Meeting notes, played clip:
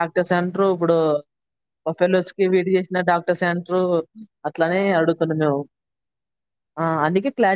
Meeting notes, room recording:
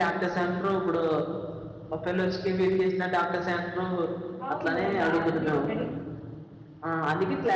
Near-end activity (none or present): present